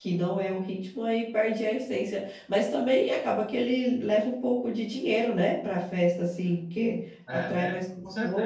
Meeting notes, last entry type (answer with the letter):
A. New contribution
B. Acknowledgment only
A